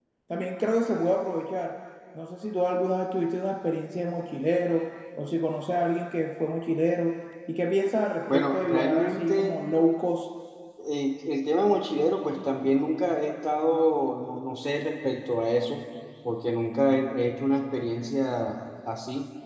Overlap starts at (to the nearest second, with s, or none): 8 s